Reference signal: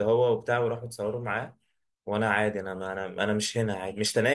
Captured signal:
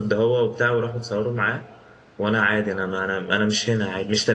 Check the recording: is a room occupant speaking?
No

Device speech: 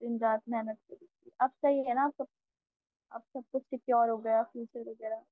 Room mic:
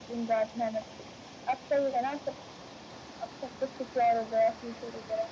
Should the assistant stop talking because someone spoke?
No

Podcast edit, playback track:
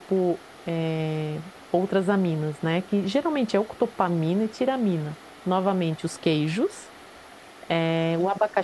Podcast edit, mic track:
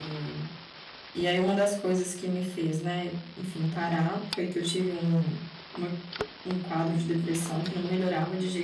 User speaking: Yes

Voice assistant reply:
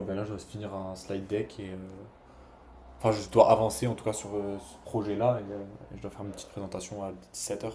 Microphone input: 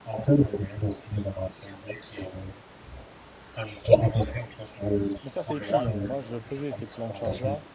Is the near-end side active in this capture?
Yes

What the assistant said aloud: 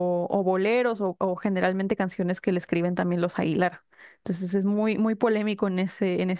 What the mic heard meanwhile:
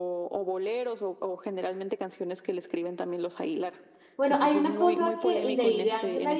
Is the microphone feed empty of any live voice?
No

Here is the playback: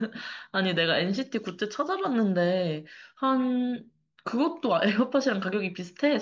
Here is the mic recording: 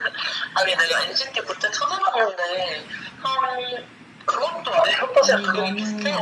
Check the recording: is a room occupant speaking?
Yes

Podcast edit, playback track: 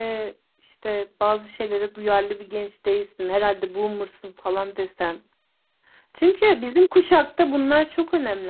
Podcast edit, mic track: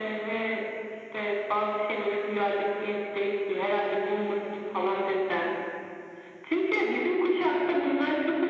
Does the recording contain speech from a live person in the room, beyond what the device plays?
No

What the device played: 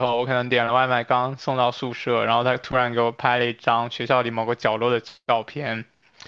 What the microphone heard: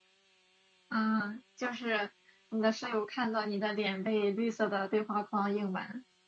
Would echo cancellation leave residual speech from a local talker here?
Yes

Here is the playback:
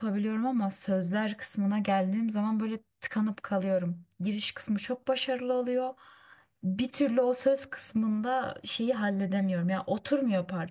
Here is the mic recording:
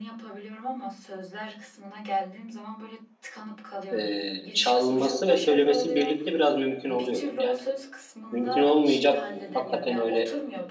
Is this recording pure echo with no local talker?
No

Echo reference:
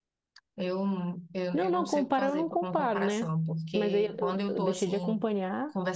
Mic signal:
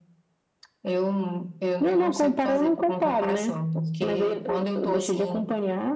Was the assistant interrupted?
No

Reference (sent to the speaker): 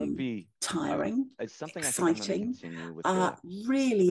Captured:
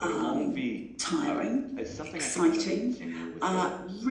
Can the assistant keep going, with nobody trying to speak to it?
Yes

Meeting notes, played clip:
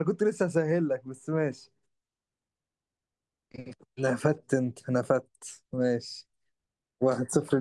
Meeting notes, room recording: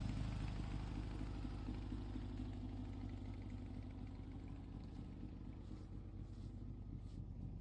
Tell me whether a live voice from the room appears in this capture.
No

